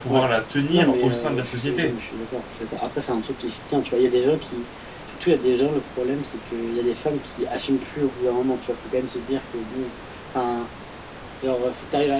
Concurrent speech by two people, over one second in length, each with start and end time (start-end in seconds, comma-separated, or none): 0.7-1.9